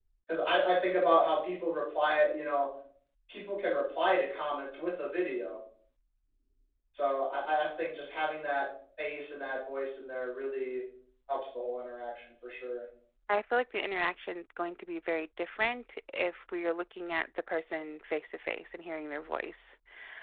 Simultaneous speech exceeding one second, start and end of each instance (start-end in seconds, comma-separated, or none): none